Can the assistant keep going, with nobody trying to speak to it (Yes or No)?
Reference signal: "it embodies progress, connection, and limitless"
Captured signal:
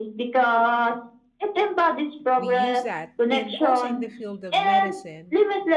No